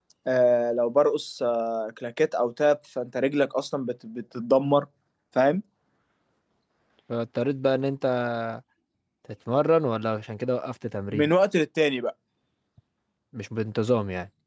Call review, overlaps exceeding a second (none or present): none